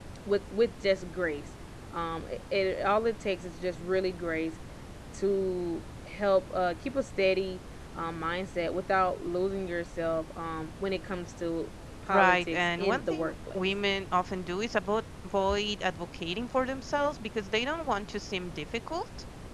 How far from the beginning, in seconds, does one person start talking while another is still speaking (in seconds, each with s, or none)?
12.1 s